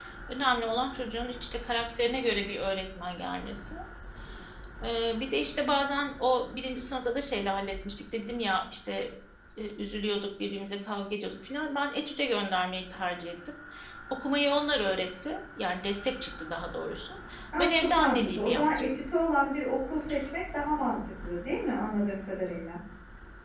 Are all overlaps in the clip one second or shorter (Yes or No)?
No